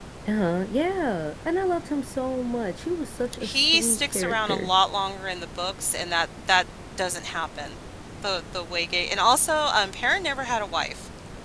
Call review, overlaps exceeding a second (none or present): present